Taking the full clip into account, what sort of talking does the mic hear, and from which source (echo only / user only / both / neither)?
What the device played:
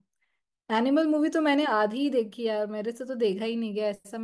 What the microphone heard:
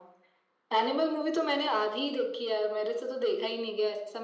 echo only